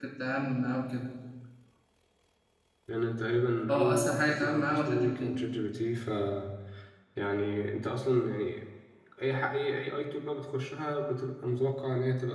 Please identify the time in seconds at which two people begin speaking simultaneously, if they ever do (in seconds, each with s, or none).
3.7 s